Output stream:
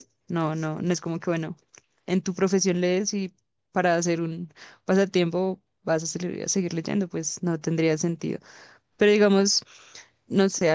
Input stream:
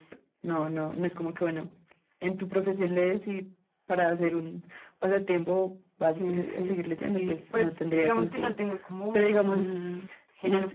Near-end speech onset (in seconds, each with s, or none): 6.1 s